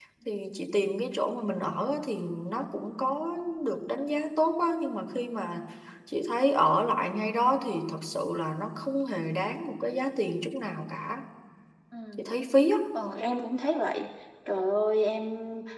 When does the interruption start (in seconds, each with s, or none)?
none